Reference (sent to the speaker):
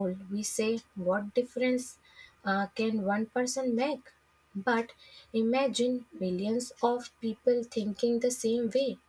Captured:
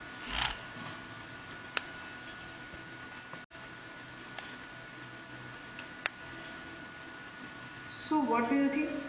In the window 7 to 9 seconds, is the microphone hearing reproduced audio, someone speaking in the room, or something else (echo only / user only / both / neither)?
user only